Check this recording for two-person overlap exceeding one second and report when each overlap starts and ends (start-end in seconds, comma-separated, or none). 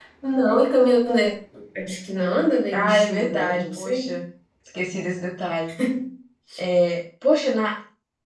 2.7-4.1